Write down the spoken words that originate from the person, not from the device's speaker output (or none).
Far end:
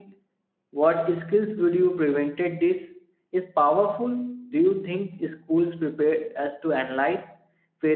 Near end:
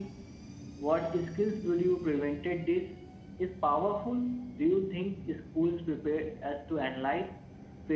none